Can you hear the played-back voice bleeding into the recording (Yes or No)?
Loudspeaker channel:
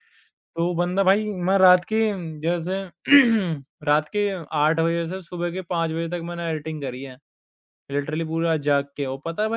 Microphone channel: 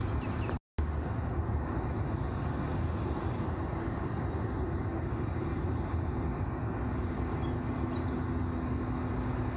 No